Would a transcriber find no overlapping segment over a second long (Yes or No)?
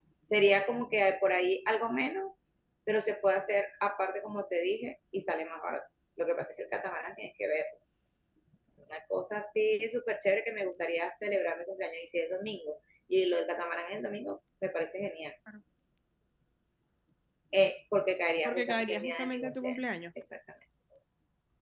No